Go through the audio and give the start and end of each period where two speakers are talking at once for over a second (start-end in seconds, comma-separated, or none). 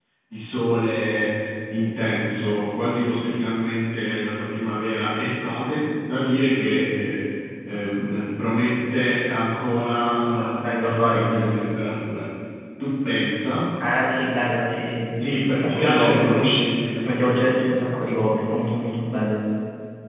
10.3-11.6, 15.2-16.4